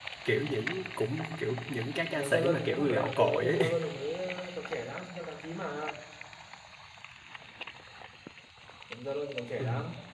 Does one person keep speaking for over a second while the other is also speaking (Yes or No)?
Yes